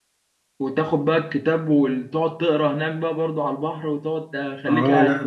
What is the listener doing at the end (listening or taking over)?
taking over